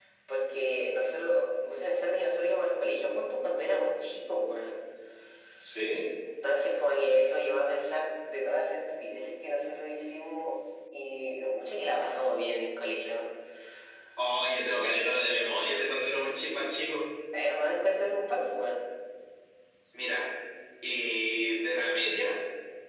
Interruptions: none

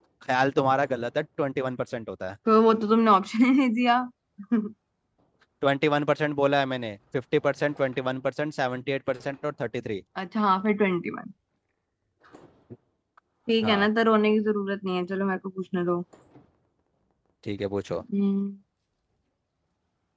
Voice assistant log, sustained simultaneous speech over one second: none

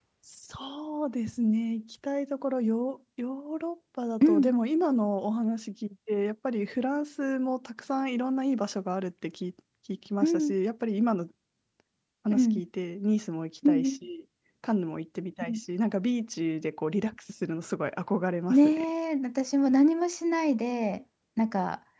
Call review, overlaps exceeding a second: none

